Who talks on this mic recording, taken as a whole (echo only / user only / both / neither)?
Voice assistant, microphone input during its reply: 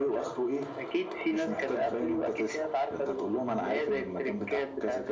echo only